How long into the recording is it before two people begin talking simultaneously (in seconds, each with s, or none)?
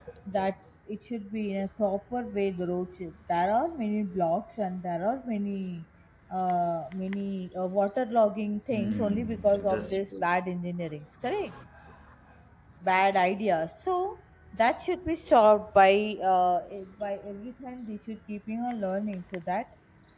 8.7 s